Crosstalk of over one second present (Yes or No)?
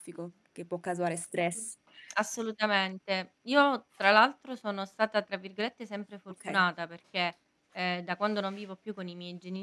No